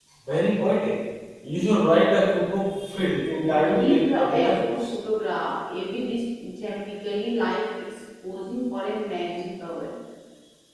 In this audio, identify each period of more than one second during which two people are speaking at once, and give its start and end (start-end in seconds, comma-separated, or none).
3.5-4.9